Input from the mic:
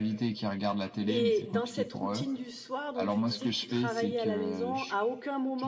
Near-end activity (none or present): present